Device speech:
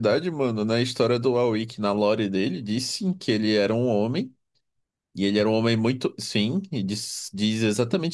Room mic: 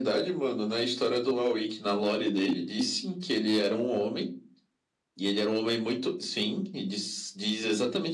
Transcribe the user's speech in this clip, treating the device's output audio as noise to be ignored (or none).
none